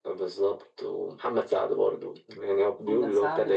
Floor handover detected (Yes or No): Yes